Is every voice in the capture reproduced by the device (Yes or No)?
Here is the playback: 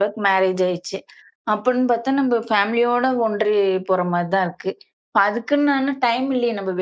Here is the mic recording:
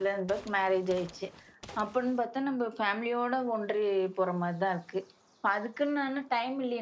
Yes